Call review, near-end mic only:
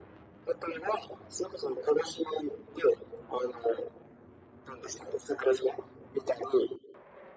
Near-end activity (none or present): none